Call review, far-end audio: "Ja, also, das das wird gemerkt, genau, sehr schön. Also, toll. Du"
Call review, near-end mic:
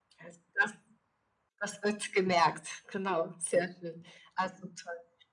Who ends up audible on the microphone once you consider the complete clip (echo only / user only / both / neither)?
echo only